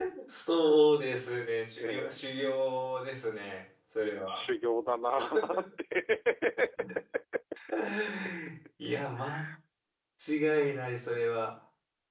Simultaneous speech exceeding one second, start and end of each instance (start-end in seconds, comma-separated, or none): none